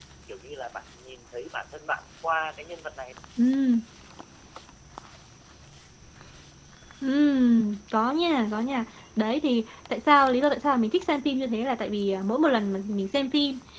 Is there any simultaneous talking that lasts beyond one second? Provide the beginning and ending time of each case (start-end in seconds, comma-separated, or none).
none